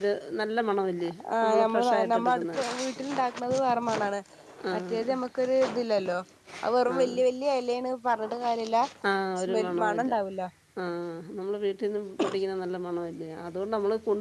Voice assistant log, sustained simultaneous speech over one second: present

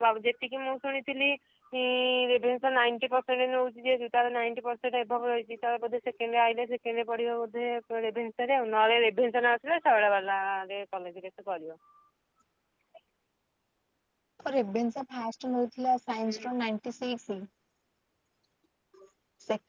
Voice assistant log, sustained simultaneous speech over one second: none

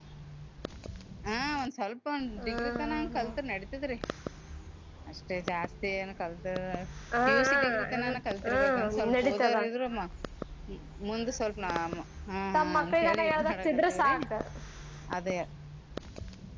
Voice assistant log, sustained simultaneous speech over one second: present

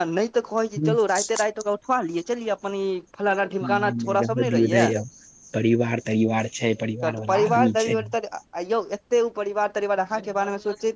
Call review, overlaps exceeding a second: present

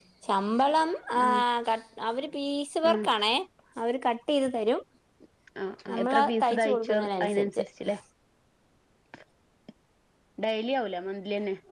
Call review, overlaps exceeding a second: present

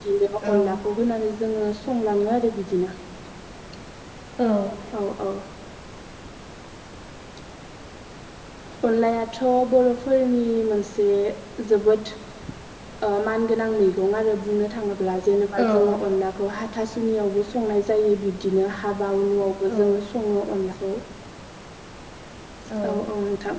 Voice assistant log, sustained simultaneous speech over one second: none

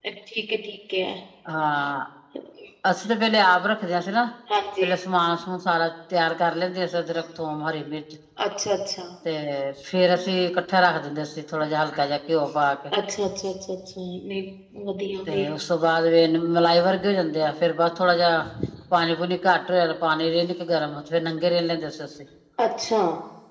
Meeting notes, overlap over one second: none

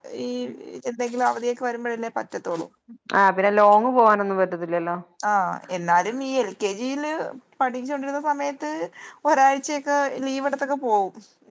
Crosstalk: none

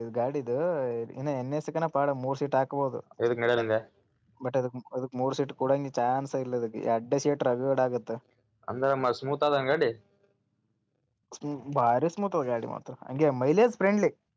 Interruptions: none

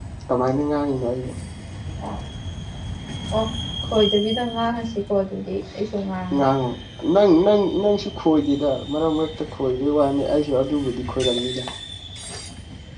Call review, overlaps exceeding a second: none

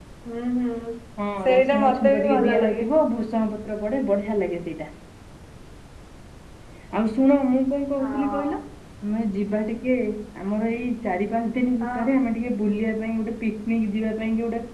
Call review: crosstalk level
present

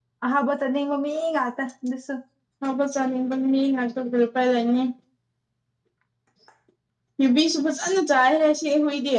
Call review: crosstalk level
none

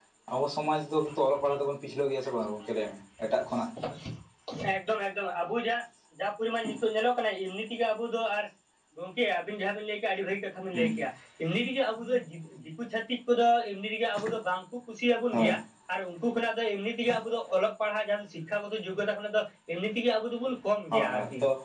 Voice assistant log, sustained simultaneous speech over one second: none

